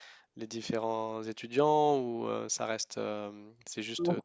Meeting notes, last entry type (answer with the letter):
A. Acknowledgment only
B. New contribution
A